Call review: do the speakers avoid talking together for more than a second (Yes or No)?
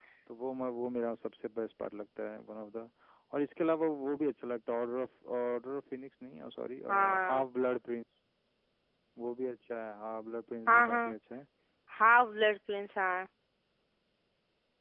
Yes